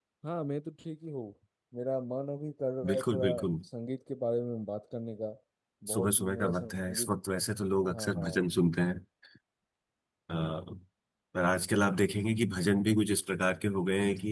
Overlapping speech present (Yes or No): Yes